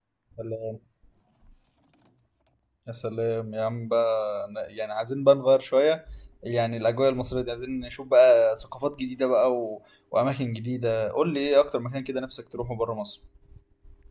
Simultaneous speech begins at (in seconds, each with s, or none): none